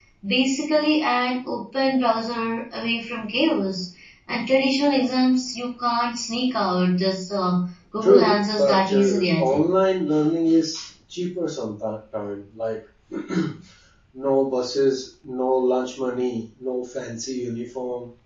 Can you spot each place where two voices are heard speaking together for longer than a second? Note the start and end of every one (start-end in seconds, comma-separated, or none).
8.0-9.7